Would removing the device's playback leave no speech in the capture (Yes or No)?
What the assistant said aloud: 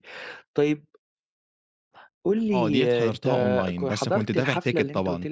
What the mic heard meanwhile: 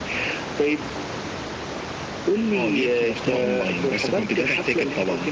Yes